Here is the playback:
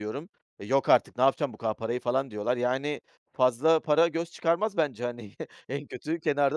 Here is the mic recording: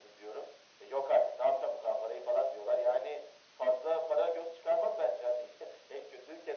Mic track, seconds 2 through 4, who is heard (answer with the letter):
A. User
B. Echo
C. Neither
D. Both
B